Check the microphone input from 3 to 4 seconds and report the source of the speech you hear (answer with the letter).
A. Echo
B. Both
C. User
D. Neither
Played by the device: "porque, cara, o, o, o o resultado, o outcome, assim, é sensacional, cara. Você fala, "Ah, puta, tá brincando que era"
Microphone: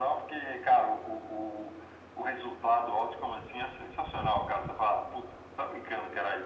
A